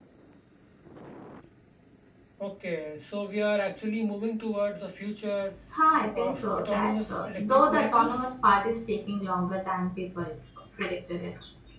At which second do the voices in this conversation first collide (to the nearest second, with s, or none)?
6 s